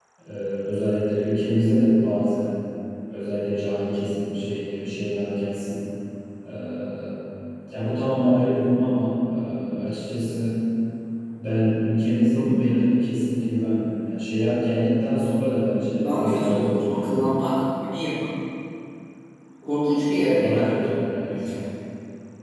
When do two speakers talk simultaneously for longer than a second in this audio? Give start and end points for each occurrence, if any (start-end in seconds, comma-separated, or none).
16.0-17.3